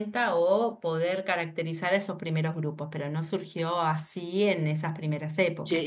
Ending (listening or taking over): taking over